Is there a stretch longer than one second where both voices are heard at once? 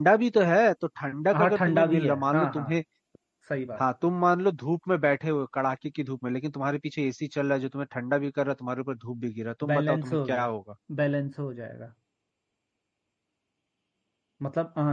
Yes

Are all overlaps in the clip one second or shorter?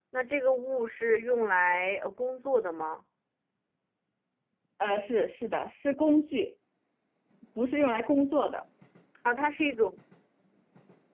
Yes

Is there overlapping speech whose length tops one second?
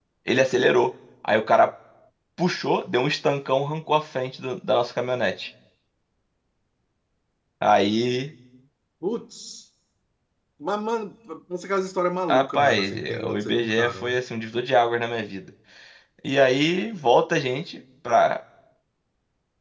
Yes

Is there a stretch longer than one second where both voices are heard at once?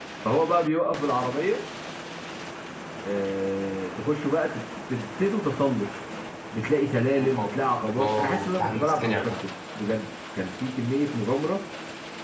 Yes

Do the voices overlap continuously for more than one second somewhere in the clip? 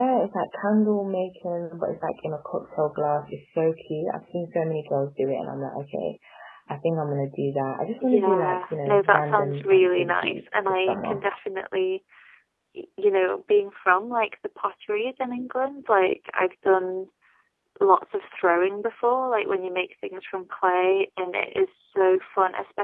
Yes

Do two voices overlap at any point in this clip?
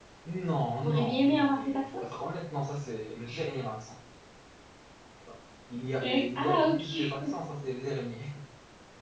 Yes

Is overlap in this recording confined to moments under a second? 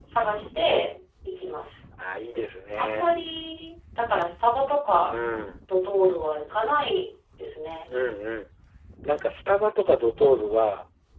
Yes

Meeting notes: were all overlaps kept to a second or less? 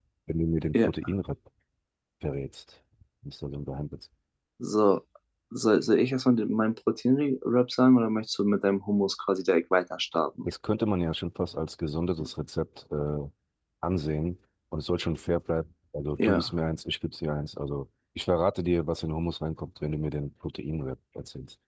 Yes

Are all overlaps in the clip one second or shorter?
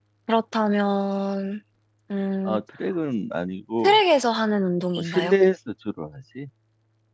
Yes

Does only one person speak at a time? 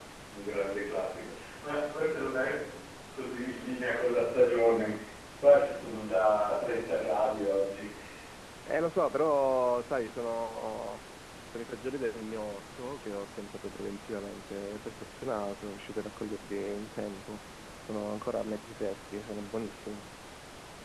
Yes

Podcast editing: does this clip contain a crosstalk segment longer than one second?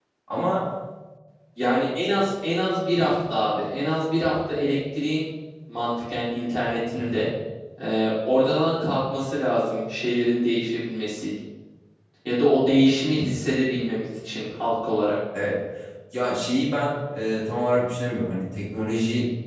No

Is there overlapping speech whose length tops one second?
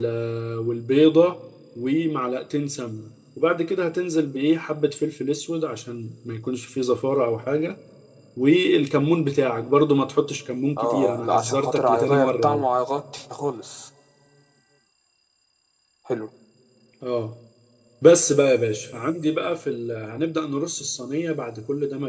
Yes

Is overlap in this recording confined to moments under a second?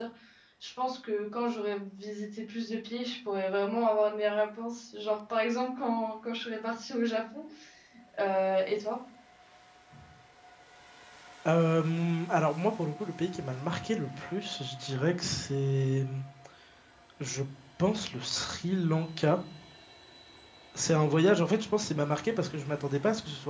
Yes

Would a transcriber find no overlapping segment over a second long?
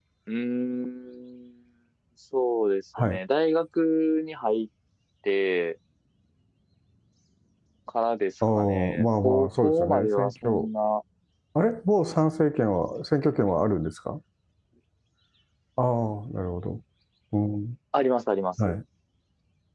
No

